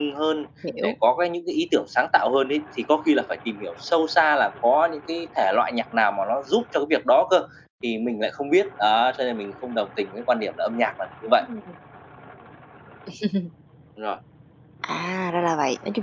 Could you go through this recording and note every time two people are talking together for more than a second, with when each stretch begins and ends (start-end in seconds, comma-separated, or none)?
none